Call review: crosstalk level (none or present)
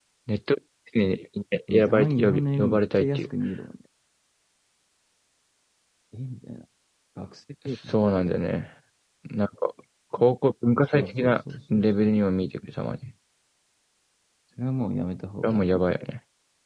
present